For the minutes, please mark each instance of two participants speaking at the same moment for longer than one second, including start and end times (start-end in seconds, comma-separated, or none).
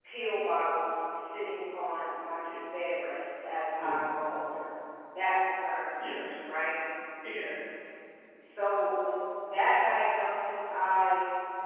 none